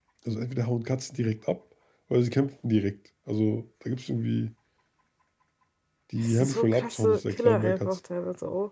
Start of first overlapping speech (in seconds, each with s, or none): 6.2 s